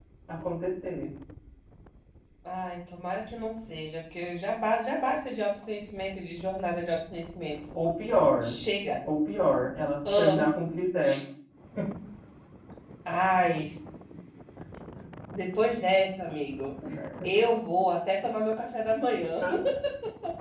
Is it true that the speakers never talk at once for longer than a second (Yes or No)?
Yes